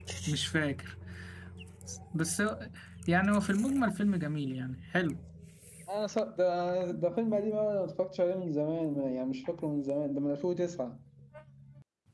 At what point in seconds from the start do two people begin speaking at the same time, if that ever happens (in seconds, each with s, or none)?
none